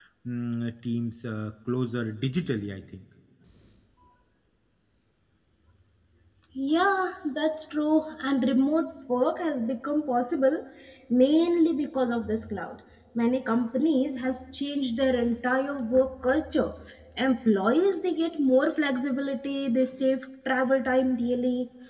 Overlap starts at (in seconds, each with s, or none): none